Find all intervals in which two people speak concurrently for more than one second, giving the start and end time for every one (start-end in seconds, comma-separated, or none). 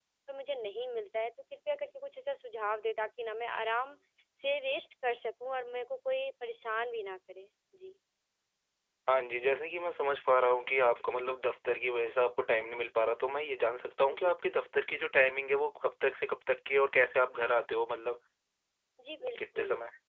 none